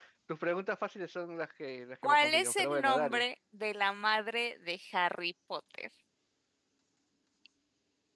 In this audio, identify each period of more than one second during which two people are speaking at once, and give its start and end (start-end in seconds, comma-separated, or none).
2.0-3.2